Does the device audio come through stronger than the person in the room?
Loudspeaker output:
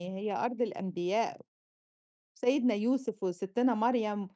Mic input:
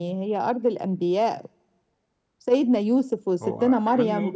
Yes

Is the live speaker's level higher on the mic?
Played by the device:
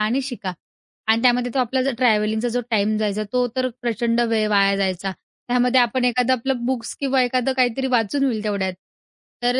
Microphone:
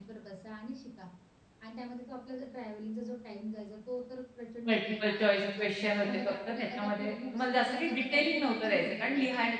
Yes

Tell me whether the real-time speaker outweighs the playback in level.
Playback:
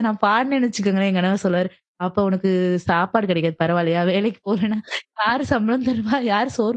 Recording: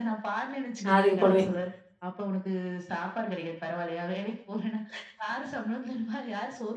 Yes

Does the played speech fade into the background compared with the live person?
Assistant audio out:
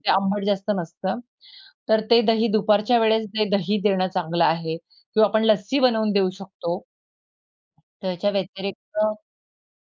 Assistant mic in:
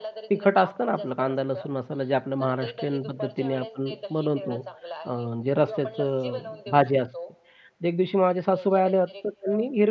Yes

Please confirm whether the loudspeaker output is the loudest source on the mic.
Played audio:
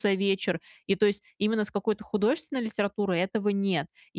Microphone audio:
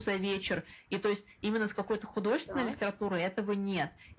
Yes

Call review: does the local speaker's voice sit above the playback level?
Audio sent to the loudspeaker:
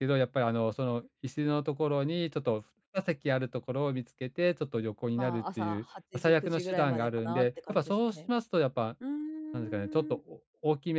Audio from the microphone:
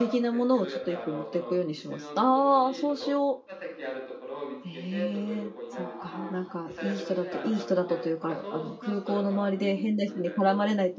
Yes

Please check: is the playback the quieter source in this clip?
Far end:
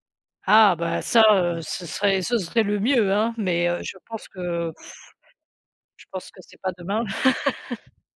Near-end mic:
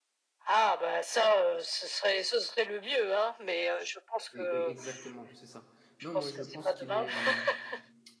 No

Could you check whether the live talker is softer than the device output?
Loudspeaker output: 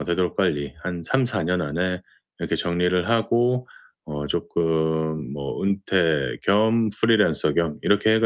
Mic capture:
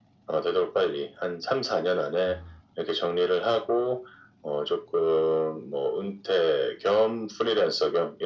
Yes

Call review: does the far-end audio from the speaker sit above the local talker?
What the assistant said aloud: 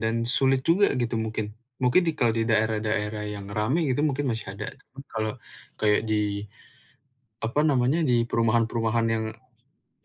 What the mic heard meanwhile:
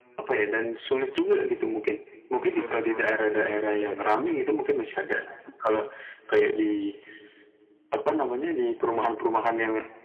Yes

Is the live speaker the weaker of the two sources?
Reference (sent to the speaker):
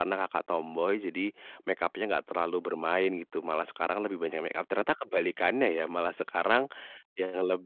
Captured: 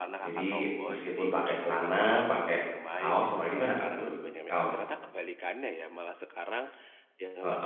No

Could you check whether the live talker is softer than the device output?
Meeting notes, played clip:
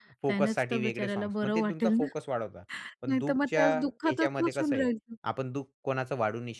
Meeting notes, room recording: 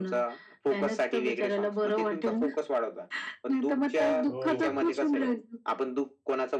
Yes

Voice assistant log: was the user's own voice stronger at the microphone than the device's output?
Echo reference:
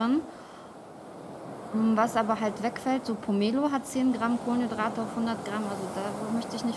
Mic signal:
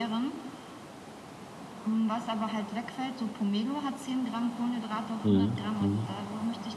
Yes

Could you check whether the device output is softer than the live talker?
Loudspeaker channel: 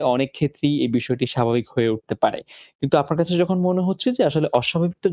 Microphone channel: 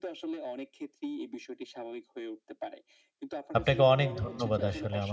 Yes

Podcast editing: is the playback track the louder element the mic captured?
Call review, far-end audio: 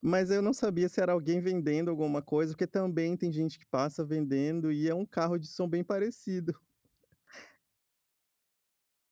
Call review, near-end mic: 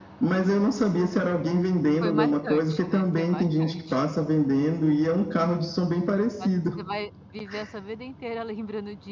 Yes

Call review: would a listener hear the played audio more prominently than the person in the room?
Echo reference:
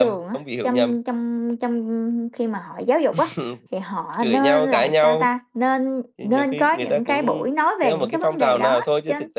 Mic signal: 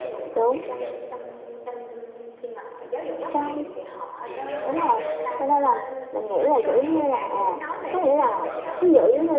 No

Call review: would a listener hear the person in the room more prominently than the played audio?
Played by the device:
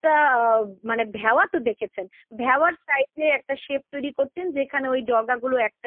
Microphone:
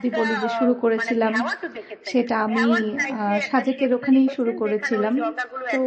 Yes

